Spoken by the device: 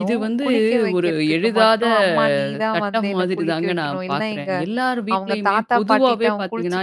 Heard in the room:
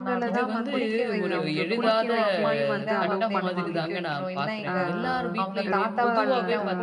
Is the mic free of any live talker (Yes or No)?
No